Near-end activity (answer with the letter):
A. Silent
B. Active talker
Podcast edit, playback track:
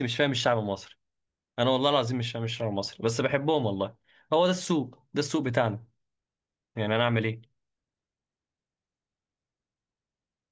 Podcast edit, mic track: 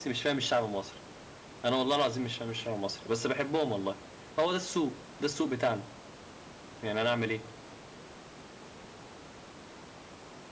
A